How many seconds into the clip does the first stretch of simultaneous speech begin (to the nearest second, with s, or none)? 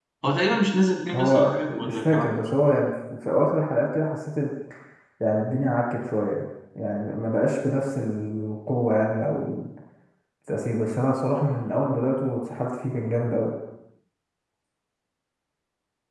1 s